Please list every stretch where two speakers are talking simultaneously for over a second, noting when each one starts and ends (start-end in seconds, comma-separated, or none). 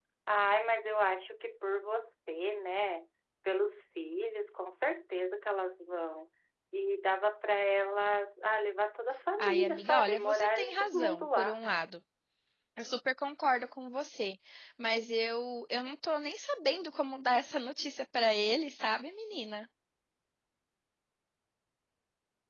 9.4-11.6